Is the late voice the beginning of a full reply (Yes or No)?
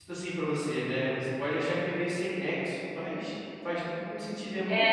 Yes